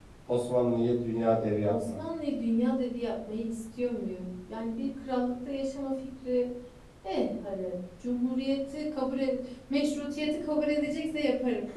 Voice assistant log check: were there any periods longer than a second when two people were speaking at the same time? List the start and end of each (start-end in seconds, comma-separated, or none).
none